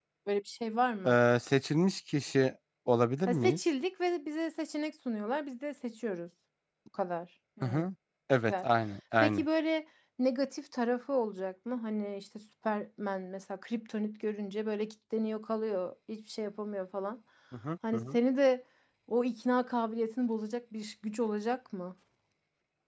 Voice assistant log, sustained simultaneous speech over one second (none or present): none